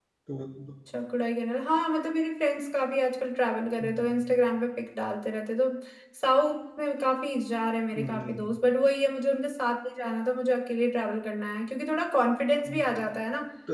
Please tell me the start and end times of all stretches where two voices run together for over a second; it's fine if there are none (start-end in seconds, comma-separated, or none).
none